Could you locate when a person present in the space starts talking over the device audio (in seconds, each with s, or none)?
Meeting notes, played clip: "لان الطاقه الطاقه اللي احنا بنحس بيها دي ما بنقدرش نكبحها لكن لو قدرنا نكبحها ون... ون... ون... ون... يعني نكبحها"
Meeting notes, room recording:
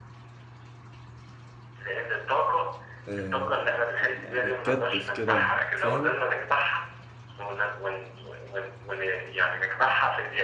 3.1 s